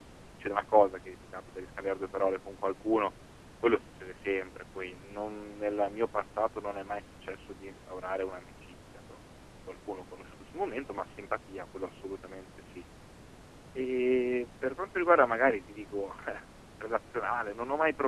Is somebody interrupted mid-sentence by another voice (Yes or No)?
No